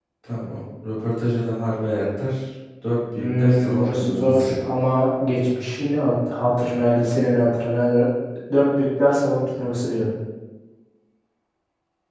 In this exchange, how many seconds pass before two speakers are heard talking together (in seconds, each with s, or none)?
3.2 s